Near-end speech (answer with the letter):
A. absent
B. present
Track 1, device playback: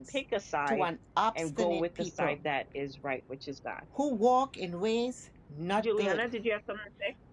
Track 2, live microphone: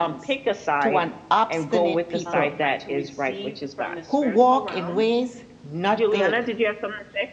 B